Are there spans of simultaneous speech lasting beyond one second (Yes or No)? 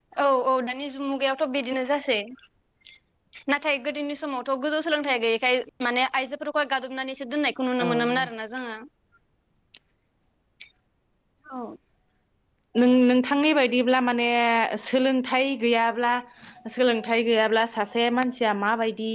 No